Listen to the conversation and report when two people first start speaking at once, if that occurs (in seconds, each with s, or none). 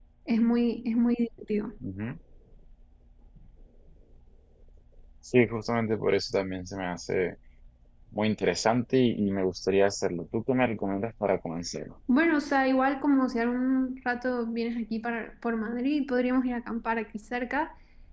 none